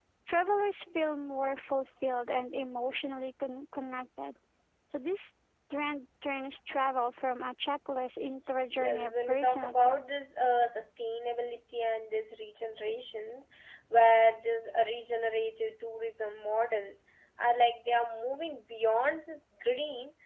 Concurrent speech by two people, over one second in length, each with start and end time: 8.7-10.0

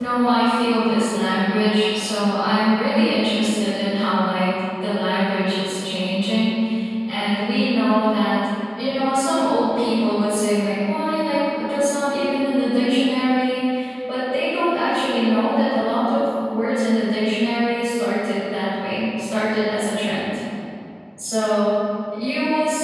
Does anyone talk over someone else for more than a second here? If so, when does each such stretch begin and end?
none

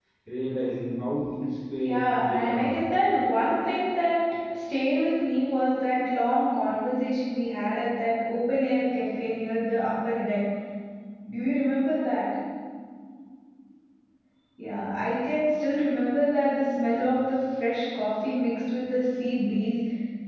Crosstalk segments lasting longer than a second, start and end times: 1.8-3.2

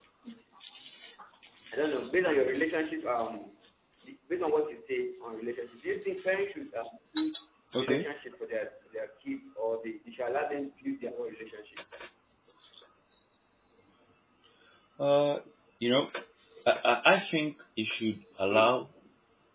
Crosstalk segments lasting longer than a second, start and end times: none

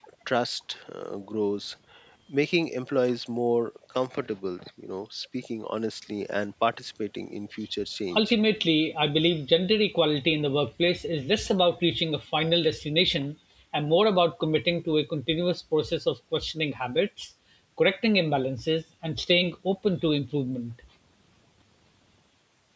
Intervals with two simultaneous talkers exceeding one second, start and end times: none

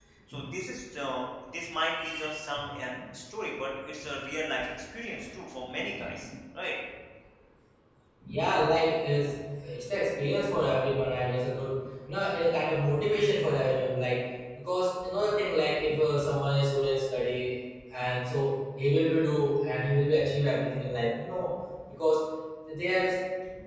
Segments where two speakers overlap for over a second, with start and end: none

